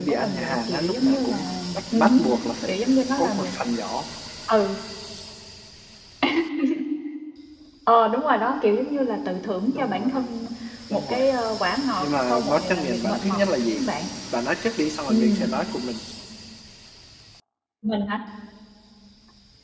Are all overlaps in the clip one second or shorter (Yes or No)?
No